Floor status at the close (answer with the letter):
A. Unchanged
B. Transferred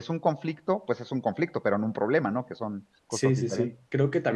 B